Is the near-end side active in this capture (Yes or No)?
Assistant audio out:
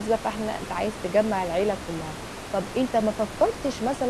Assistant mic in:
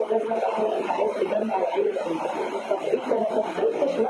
Yes